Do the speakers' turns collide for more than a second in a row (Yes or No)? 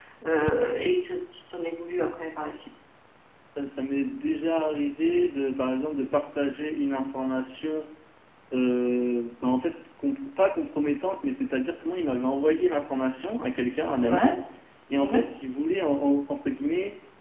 No